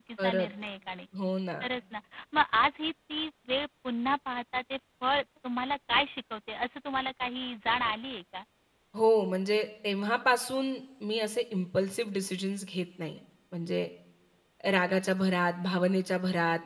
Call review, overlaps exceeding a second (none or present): none